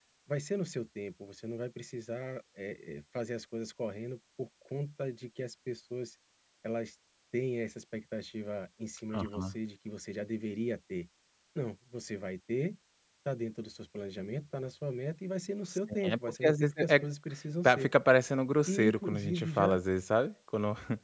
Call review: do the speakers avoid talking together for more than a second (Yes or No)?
No